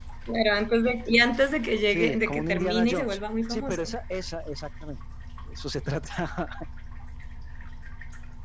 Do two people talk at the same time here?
Yes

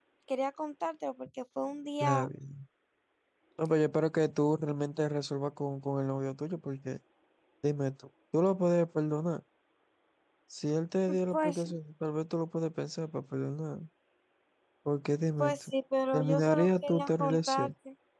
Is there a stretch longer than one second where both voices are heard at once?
Yes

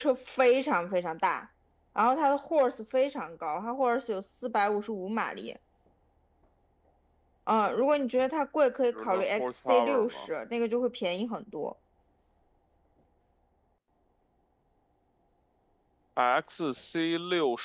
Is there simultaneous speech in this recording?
Yes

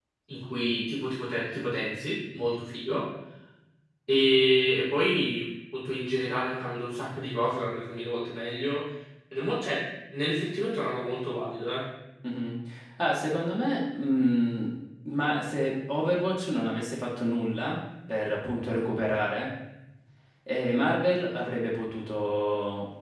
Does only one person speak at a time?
Yes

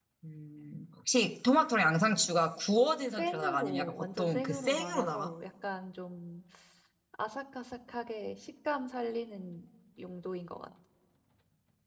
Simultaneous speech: Yes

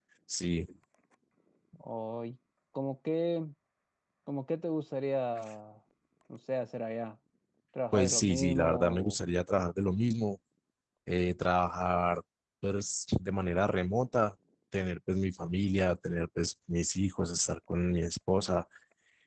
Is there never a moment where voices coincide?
No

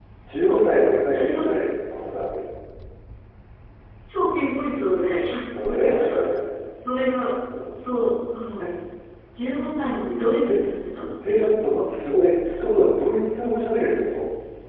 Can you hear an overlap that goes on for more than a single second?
No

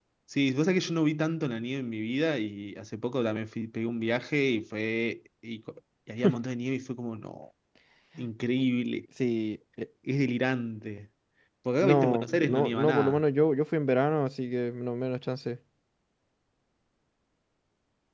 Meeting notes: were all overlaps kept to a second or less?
No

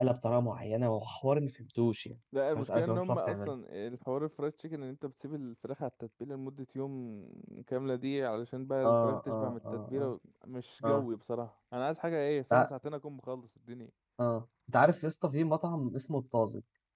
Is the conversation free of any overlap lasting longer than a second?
No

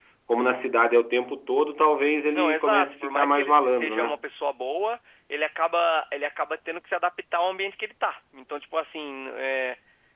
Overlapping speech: Yes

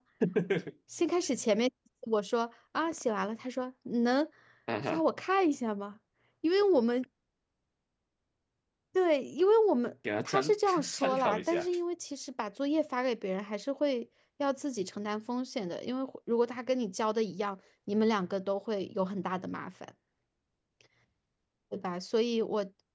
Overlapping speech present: Yes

